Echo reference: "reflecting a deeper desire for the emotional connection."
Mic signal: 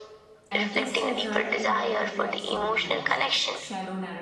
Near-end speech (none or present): present